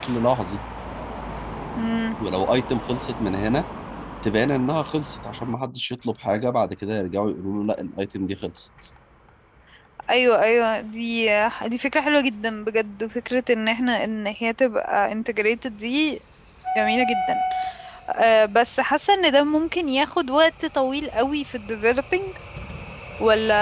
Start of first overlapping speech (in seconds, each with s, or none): none